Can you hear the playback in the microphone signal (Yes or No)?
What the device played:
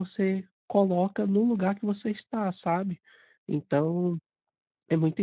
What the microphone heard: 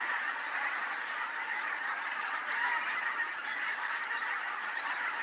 No